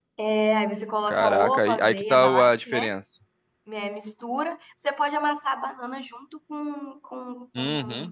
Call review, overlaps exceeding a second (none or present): present